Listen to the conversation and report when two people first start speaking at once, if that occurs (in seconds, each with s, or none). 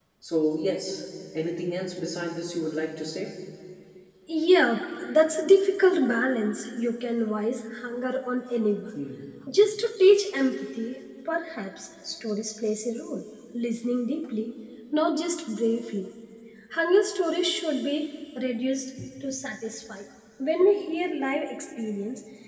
none